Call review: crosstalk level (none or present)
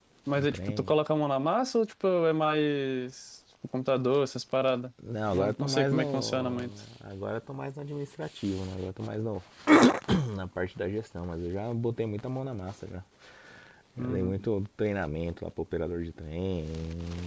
present